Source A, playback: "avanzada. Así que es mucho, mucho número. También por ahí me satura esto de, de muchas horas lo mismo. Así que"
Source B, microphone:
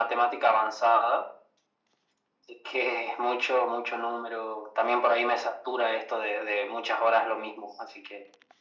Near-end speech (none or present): none